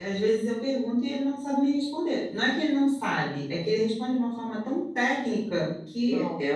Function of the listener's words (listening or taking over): listening